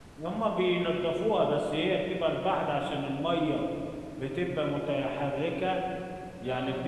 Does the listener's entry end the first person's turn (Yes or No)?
No